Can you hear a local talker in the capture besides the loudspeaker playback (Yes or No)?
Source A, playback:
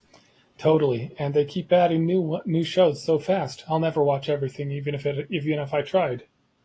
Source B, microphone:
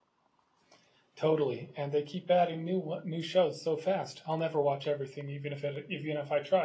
No